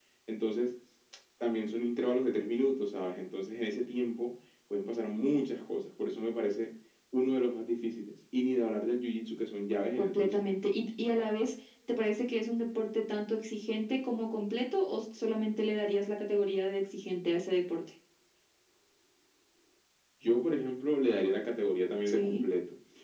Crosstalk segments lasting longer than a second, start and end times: none

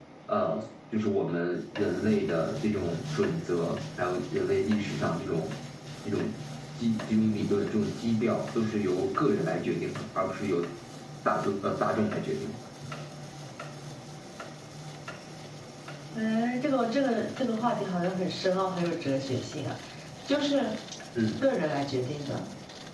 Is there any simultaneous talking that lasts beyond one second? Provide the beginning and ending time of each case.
none

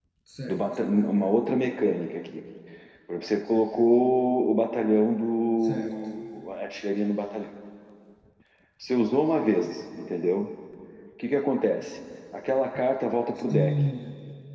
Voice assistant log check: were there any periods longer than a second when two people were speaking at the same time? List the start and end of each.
none

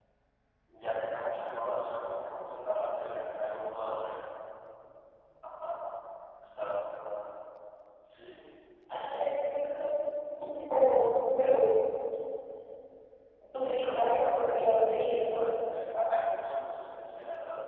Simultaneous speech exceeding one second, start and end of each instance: 13.5-15.7

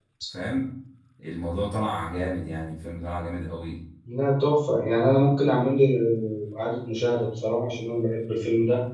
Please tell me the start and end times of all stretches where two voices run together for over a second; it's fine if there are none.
none

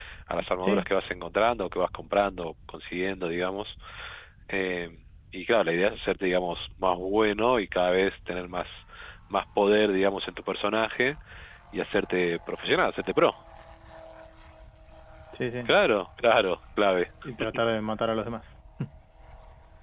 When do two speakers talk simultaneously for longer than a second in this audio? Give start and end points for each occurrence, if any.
none

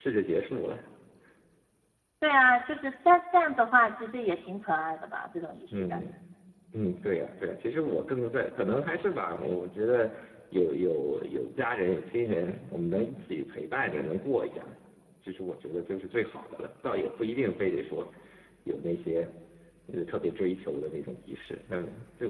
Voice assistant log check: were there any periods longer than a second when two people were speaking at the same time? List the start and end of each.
none

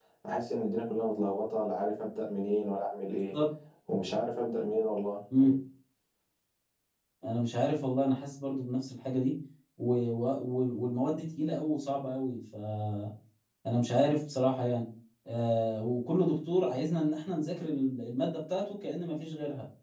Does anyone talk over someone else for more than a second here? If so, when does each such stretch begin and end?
none

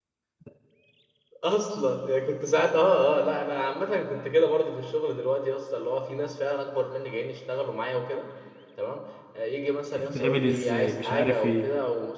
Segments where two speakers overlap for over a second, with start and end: 9.9-11.7

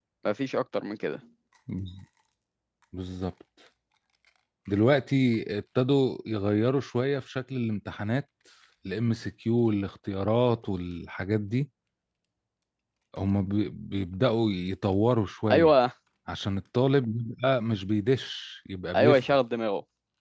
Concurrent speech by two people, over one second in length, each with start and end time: none

